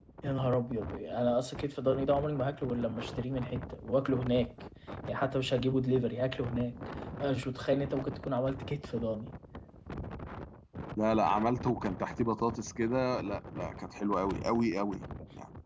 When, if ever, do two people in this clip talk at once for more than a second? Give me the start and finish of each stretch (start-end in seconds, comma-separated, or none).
none